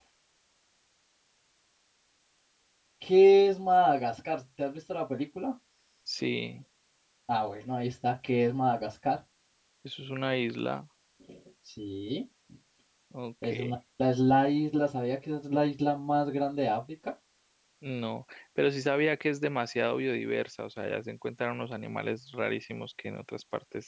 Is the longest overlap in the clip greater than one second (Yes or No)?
No